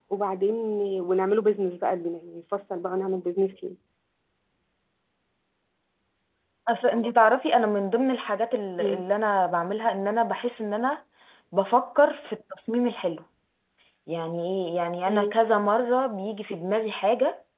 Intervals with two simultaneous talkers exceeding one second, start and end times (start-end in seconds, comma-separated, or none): none